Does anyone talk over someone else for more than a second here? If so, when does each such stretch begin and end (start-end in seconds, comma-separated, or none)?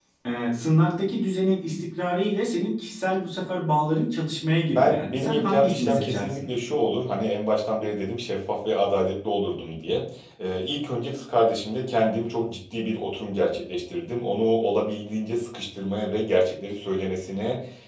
4.8-6.5